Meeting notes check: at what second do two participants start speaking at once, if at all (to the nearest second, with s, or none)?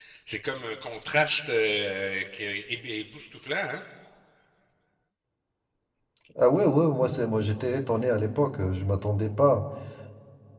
none